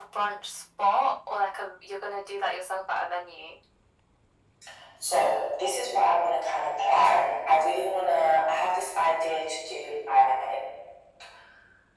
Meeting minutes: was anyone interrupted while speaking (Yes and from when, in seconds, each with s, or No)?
No